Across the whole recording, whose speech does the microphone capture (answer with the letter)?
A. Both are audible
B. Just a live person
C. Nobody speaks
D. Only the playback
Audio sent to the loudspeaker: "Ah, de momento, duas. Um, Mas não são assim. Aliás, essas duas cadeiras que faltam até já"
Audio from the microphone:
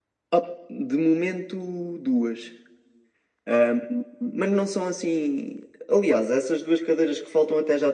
D